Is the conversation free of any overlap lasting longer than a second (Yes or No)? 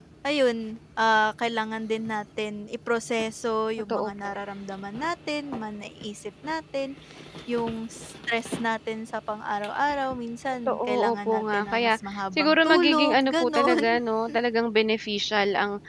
No